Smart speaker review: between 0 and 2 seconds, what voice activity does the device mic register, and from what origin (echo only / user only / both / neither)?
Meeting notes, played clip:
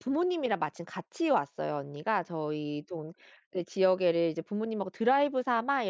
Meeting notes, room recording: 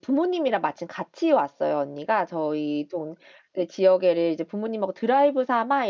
echo only